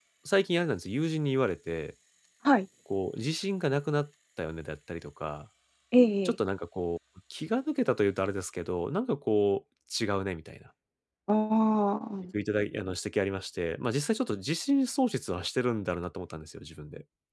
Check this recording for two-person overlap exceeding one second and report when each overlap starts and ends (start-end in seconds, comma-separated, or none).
none